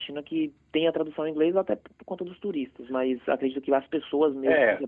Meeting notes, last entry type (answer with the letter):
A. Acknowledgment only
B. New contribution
B